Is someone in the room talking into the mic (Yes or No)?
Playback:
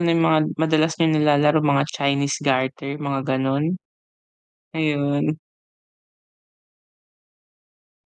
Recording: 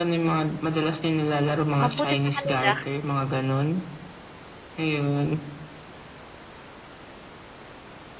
Yes